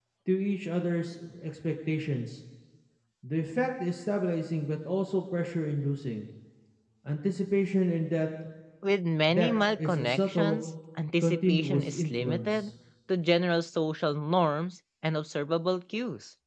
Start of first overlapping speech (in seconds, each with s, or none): 9.3 s